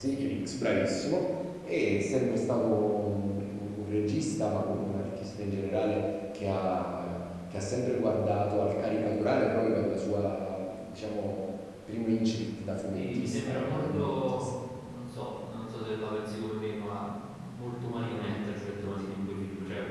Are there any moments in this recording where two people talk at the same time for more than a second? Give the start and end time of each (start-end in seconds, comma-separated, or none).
12.9-14.3